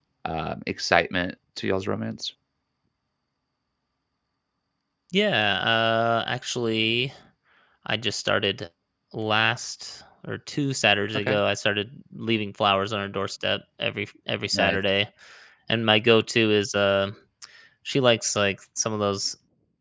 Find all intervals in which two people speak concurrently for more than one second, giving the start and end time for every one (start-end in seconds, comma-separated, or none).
none